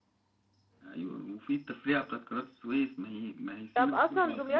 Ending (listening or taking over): taking over